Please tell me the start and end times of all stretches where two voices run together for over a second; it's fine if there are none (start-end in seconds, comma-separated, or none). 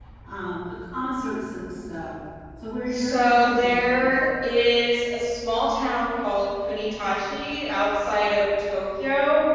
2.9-4.3